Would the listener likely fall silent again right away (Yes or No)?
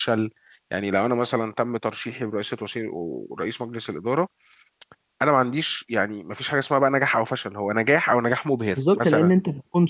No